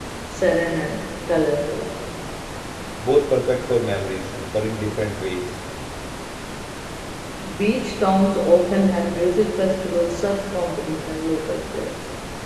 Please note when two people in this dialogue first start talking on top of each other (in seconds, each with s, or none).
none